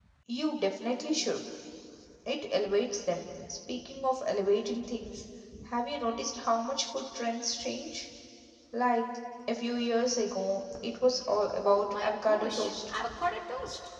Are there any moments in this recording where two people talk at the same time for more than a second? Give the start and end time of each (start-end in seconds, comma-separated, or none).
11.7-12.9